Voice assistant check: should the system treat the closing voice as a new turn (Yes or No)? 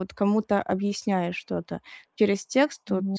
No